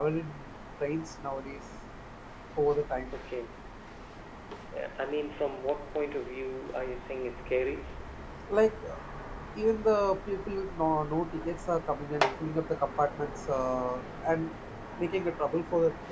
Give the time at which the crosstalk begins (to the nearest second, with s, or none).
none